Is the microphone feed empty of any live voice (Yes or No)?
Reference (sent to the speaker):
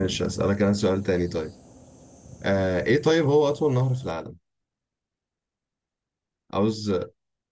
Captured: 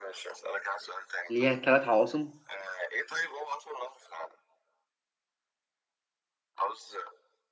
No